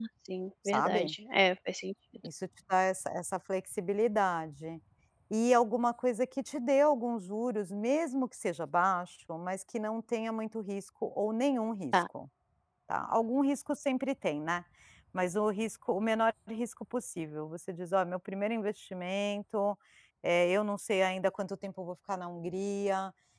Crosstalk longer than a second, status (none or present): none